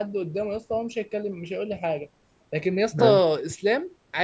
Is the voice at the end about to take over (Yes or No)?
No